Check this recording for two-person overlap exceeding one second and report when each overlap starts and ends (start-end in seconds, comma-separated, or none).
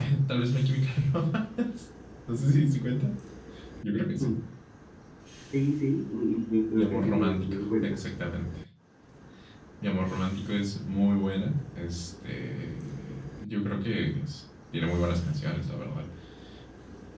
6.8-8.0